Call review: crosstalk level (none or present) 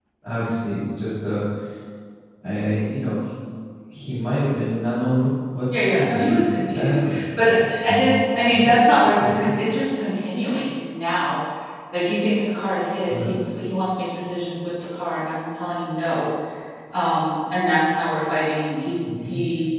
present